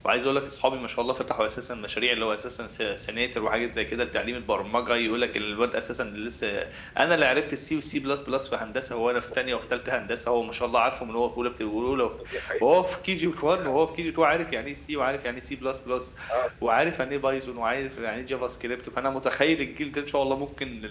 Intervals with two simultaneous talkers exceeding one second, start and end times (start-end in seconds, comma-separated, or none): none